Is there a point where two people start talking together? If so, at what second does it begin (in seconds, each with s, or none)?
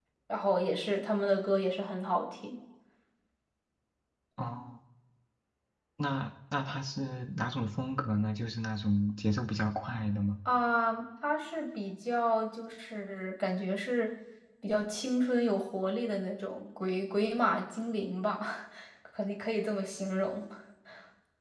none